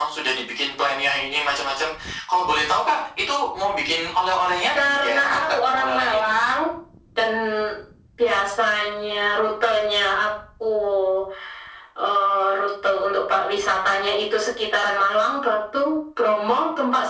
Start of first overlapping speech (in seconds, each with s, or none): 4.8 s